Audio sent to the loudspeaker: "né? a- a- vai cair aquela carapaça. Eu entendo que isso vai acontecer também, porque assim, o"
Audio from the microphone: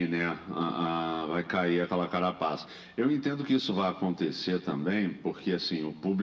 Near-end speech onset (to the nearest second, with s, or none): none